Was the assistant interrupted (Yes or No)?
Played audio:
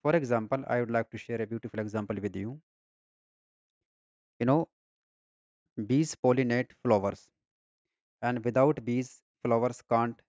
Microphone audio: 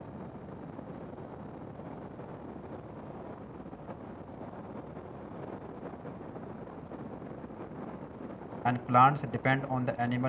Yes